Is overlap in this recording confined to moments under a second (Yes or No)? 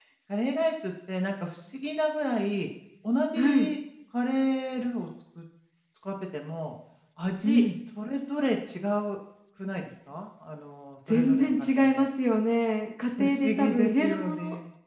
No